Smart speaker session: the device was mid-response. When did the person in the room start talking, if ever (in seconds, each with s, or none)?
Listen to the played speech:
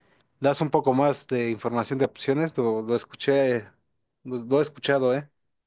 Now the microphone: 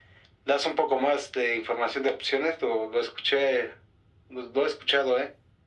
none